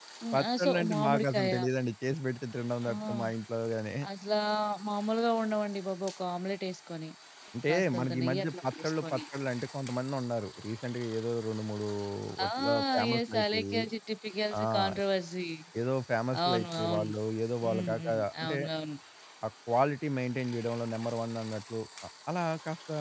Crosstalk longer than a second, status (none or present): present